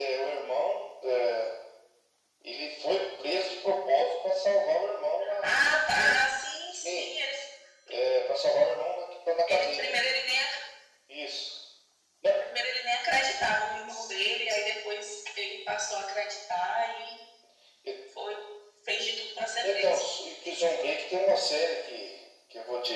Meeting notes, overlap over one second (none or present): none